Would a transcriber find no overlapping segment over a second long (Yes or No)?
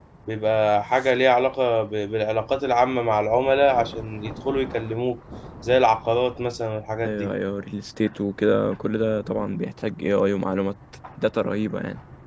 Yes